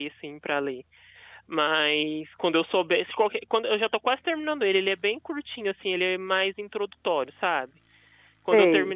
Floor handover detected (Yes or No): No